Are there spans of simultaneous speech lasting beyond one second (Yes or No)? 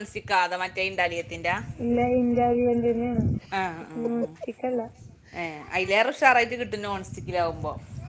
No